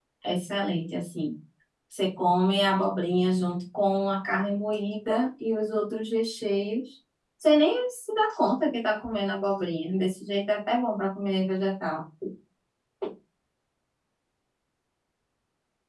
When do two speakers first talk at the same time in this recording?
none

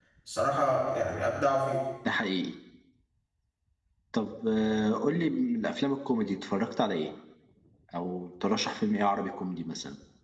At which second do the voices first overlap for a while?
none

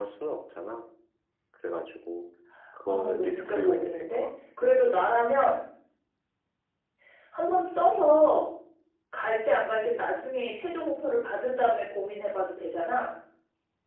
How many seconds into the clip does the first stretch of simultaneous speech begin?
3 s

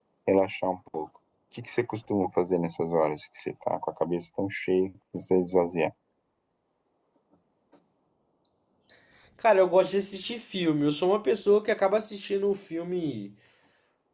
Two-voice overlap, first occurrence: none

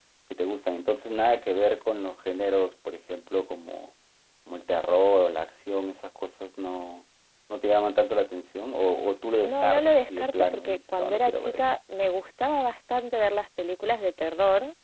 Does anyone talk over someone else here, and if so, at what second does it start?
9 s

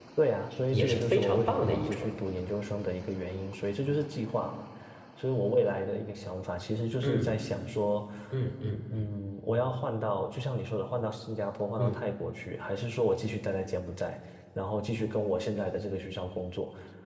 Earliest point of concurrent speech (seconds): 1 s

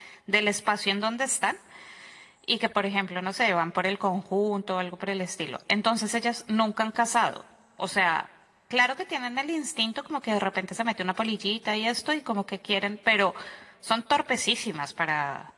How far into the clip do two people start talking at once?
none

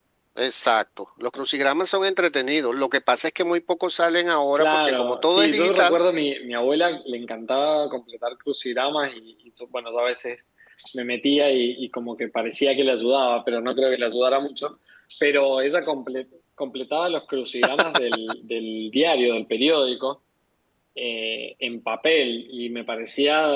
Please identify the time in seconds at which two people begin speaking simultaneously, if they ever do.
5 s

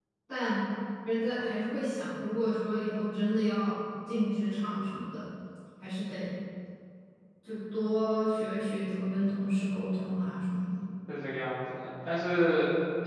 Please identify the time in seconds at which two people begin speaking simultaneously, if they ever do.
none

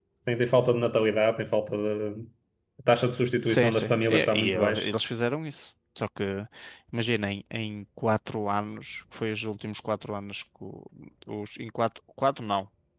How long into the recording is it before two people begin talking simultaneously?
3 s

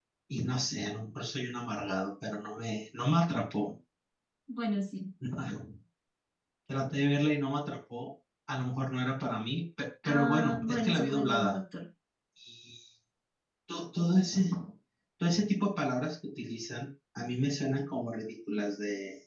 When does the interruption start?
10 s

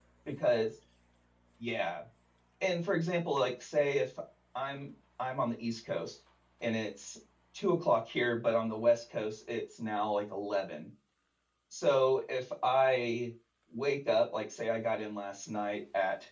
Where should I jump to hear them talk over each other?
none

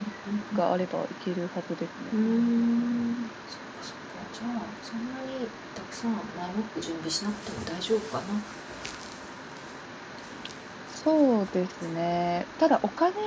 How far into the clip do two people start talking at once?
none

